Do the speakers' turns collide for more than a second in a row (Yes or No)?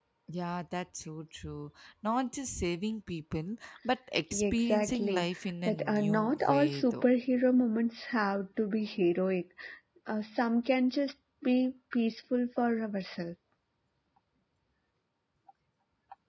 Yes